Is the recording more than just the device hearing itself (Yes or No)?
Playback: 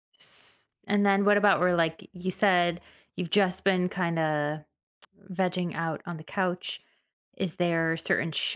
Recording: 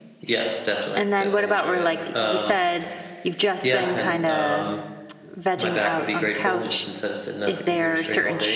Yes